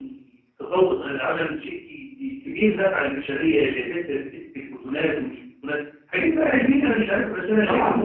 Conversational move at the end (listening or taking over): taking over